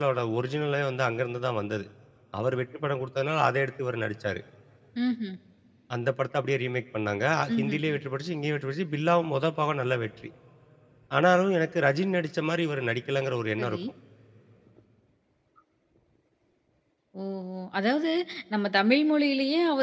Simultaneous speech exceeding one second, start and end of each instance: none

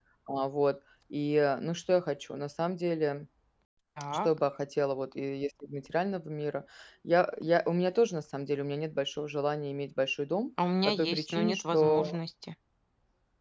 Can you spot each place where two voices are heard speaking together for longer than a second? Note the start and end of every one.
10.8-12.2

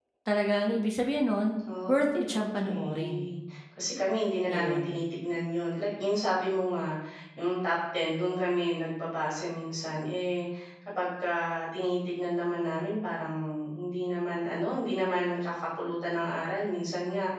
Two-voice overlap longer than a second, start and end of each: 1.9-3.3

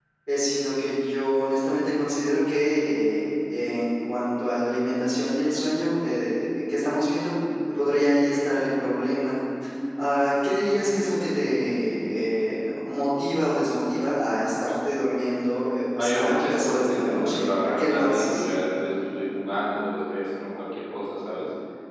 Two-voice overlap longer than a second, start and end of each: 15.9-18.4

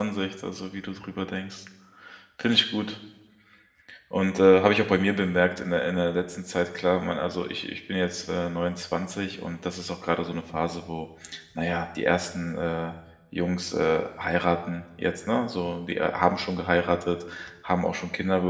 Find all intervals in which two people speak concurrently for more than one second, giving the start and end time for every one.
none

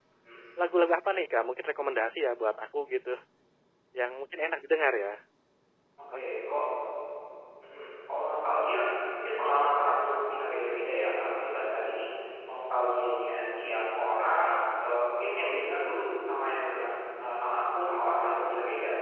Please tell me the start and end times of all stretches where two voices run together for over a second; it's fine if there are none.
none

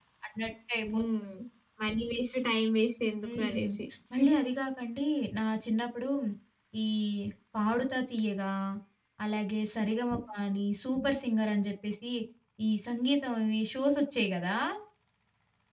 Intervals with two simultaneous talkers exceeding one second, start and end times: none

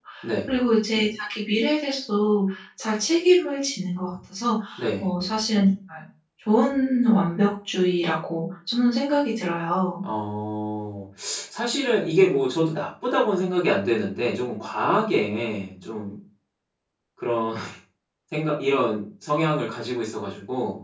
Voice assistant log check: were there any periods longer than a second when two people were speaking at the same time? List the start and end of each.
none

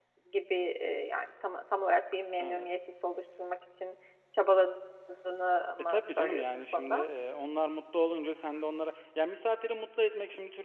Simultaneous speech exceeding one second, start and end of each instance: 5.8-7.0

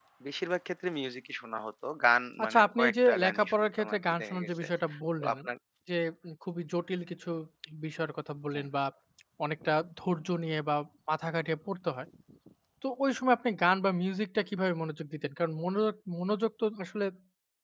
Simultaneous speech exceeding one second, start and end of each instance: 2.4-4.7

